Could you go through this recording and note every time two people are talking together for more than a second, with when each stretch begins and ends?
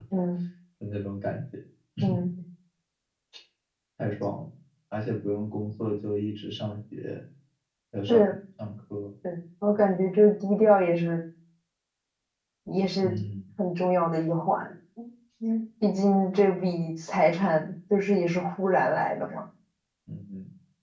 none

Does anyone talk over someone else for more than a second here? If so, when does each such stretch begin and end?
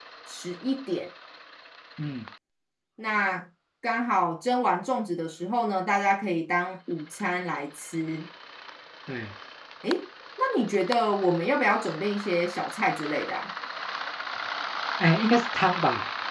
none

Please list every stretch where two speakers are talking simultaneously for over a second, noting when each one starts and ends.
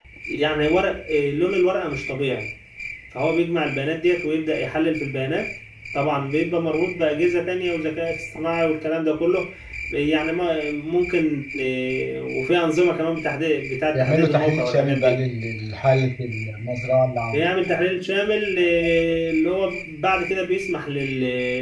13.9-15.2

